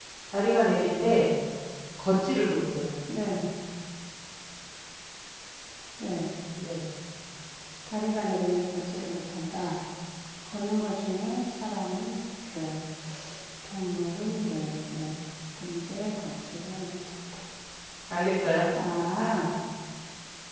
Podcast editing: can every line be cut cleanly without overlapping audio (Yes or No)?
Yes